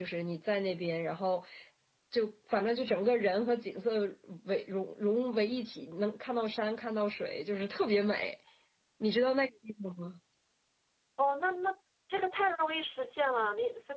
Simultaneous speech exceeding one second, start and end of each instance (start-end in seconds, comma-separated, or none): none